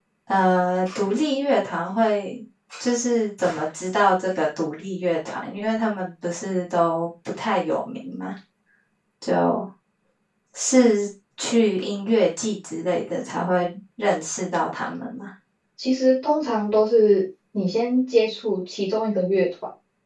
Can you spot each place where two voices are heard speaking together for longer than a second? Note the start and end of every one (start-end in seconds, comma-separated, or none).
none